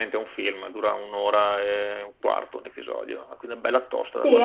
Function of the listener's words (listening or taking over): taking over